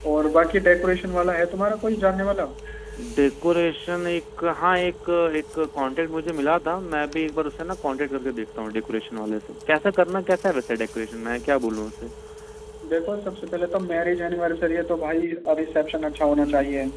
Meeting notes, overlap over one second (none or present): none